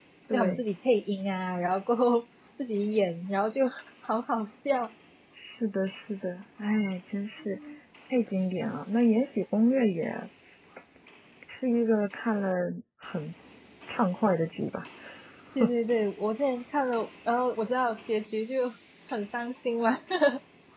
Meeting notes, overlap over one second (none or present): none